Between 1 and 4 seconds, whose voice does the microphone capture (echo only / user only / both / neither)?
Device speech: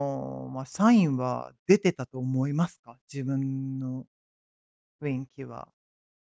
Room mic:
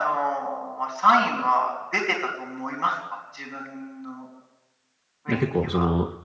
echo only